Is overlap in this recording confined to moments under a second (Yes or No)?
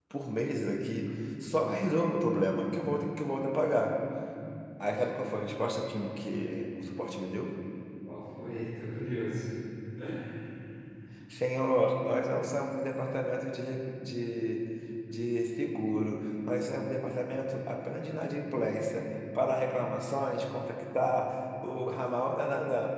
Yes